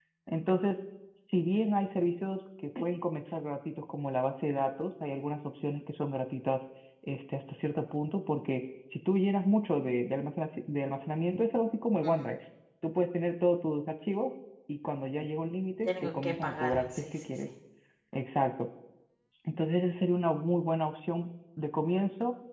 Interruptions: present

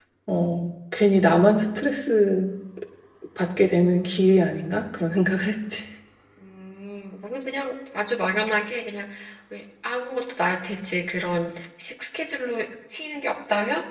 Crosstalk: none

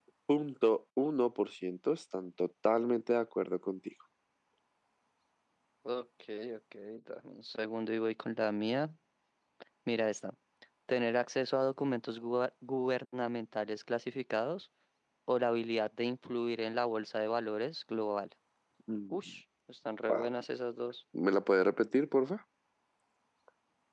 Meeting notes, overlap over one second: none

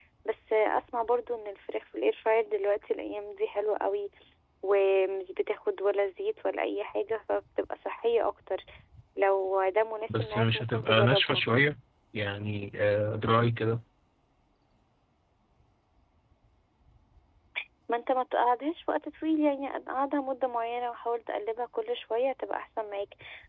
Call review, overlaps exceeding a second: present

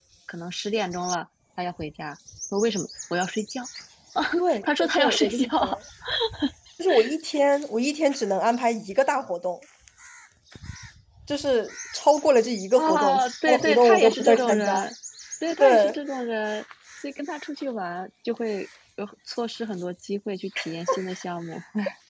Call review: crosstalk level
present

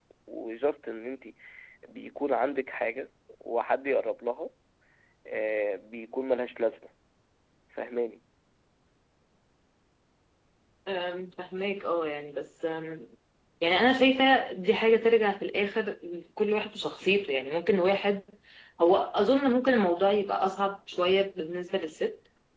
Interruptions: none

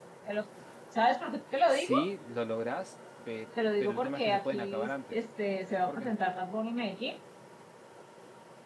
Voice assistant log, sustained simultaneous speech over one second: present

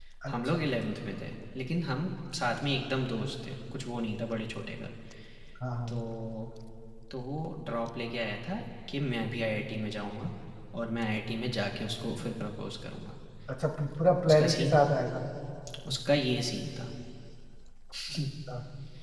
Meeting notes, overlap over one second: none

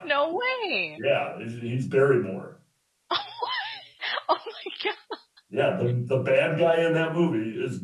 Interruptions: none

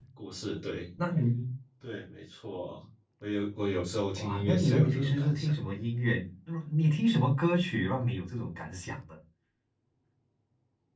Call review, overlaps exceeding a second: present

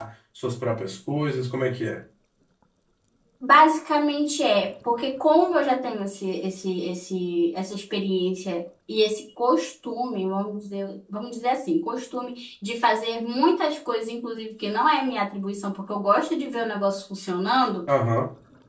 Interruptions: none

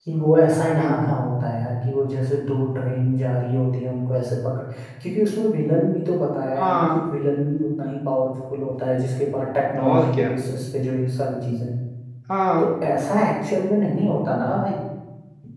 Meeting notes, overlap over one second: none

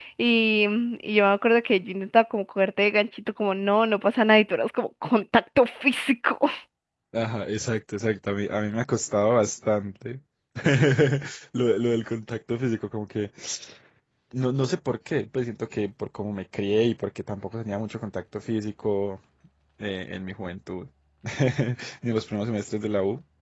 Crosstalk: none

